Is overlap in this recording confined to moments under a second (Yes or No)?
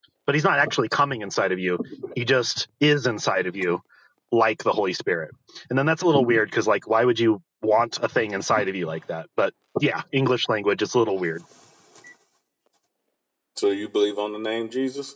Yes